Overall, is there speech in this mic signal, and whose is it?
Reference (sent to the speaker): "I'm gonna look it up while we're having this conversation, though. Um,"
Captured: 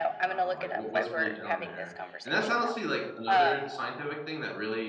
both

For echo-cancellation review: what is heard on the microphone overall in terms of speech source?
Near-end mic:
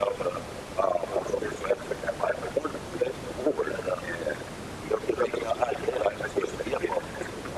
echo only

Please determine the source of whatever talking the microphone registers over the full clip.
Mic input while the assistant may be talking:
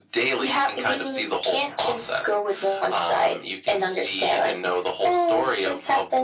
echo only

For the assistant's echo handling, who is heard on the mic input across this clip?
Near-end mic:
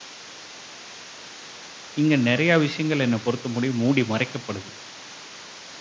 user only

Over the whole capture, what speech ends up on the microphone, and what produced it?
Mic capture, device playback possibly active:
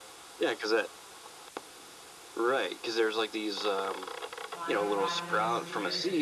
both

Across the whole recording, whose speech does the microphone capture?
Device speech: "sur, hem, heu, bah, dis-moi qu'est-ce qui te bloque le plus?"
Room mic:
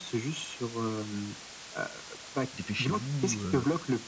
both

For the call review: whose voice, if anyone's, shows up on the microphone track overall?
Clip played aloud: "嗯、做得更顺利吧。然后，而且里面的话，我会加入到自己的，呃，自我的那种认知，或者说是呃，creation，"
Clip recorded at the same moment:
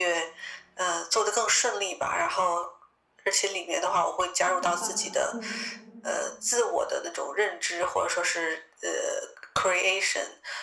both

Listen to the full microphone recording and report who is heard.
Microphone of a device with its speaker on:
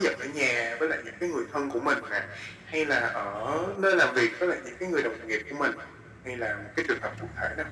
echo only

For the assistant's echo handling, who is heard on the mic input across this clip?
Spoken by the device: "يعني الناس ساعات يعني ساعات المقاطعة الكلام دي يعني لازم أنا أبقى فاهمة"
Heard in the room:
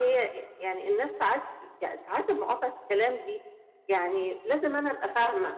echo only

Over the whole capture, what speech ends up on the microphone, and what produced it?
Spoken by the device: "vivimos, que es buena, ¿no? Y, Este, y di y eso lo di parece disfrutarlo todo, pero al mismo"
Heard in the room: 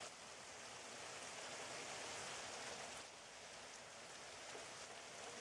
neither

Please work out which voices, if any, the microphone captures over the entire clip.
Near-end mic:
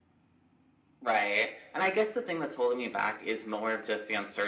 echo only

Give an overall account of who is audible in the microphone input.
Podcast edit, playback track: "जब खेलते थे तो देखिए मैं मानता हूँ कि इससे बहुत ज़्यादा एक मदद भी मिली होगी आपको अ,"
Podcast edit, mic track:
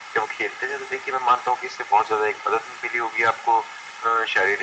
echo only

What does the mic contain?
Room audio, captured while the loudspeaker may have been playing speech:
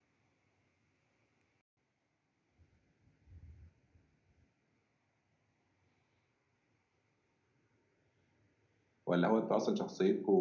user only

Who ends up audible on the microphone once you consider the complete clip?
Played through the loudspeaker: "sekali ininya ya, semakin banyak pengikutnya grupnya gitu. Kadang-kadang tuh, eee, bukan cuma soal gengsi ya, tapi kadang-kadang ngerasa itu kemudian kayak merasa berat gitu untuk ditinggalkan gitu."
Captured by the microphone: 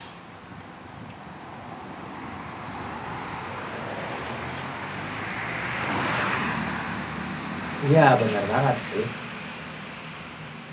user only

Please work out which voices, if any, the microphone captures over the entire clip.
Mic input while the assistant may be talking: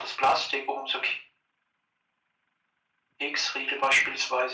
echo only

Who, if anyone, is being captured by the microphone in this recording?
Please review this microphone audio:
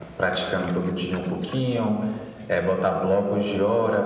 echo only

